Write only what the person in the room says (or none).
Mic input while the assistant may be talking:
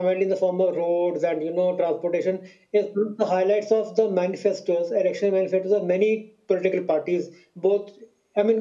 none